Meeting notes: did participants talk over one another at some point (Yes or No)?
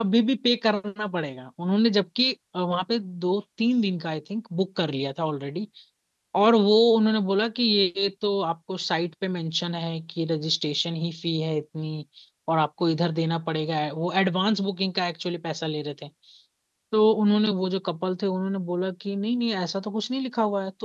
No